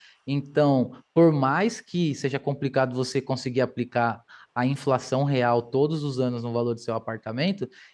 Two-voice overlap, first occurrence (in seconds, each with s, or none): none